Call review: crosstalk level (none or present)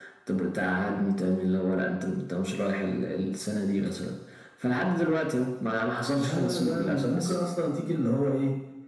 present